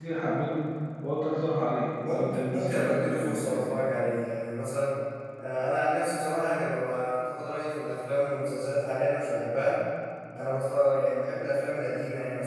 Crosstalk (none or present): present